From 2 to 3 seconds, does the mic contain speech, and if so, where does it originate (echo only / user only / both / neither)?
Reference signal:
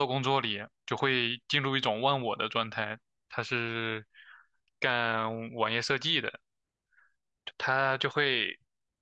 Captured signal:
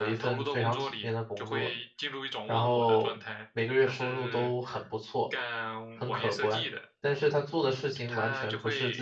both